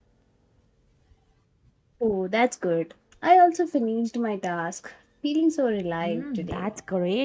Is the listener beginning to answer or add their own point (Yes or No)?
Yes